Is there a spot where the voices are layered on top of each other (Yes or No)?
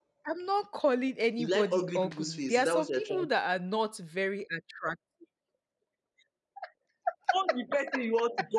Yes